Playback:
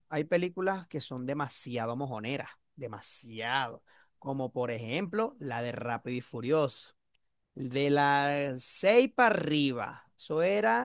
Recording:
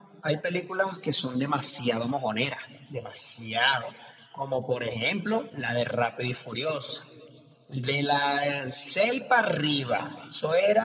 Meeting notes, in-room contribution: none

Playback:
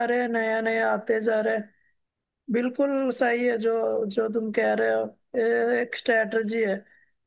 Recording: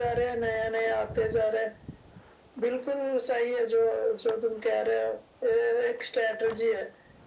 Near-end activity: none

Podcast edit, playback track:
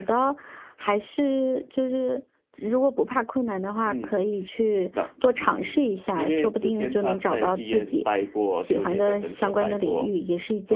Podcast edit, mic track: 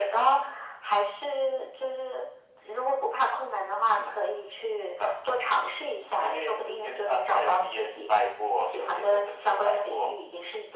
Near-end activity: none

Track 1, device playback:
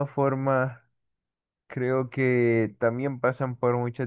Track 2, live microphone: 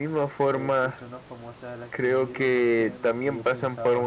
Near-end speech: present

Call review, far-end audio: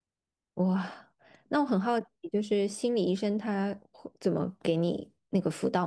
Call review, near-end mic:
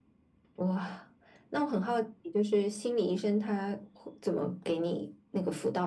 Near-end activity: none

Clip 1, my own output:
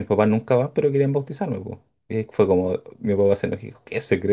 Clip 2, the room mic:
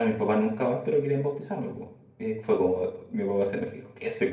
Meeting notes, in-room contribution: none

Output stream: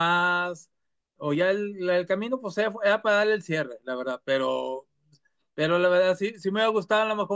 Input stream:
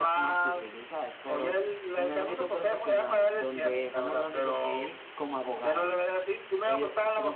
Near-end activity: present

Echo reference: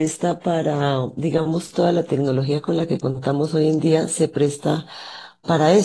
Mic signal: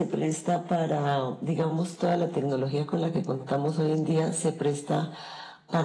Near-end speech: none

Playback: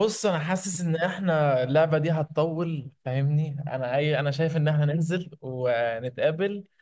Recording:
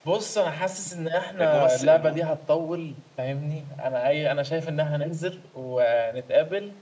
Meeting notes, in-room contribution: present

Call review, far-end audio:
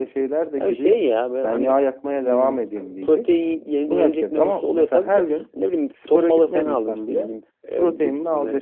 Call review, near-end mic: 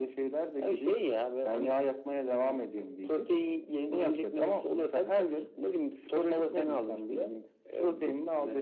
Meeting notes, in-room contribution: none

